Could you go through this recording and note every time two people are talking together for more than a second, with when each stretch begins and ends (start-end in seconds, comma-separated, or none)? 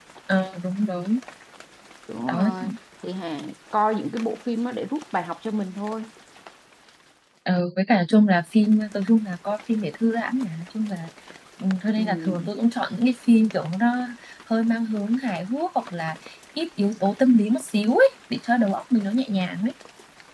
none